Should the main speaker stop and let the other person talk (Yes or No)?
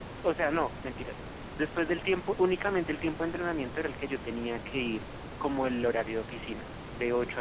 No